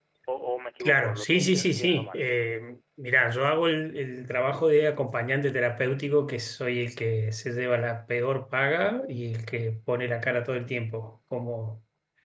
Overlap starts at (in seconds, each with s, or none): 0.8 s